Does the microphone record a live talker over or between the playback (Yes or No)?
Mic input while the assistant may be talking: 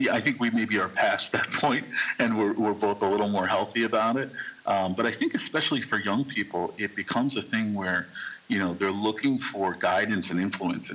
No